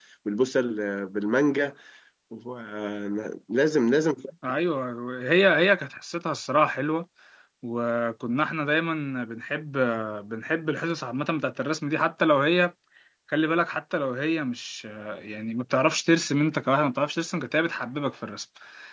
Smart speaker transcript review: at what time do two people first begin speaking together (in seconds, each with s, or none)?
none